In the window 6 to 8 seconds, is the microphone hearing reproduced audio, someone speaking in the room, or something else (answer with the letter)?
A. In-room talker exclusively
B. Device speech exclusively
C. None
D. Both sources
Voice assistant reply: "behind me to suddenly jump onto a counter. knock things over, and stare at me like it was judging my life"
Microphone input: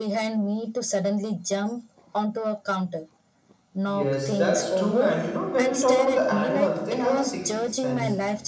D